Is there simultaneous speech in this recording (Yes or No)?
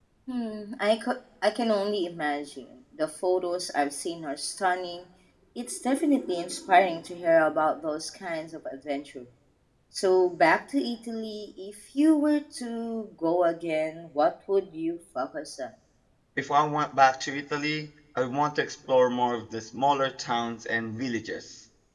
No